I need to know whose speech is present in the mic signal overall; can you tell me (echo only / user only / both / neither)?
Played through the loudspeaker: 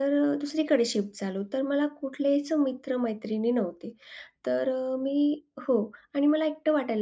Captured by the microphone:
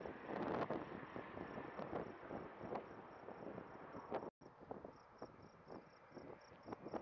neither